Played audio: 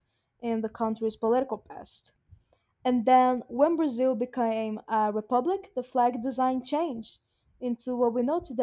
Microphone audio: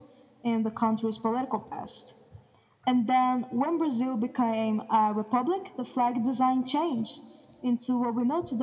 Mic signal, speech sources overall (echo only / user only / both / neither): echo only